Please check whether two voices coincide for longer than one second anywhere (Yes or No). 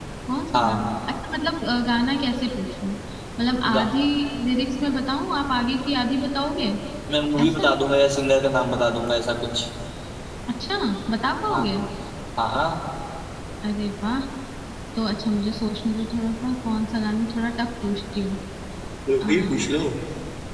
No